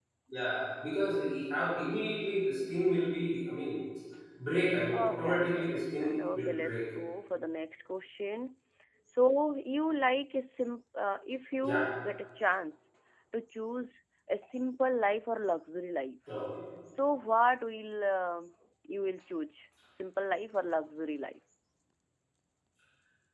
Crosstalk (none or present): present